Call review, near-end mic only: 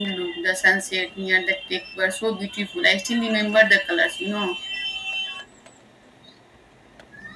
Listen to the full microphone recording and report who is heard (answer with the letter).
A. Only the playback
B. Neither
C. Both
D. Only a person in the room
A